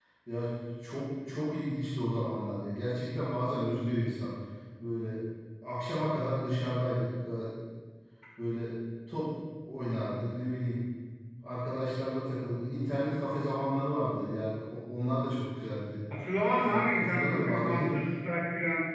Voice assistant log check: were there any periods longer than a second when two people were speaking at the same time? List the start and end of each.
16.7-17.9

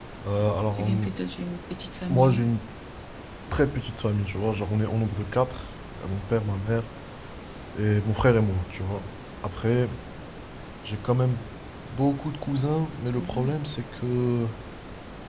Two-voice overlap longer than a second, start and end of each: none

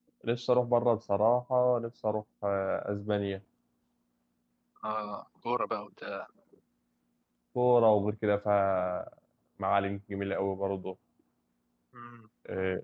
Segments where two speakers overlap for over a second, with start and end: none

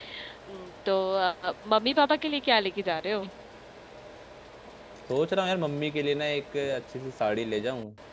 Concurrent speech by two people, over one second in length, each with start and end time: none

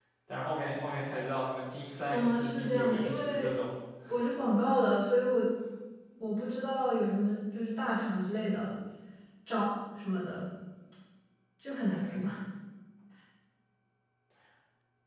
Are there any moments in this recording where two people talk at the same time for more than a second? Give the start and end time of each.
2.1-3.5

